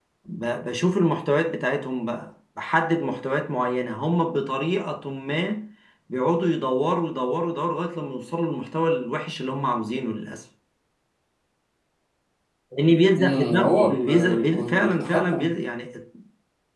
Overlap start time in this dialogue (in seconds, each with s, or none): 13.2 s